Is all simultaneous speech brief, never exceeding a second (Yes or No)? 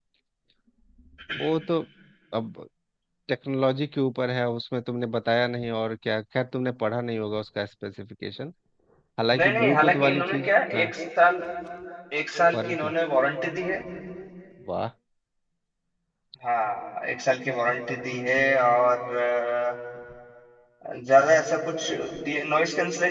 No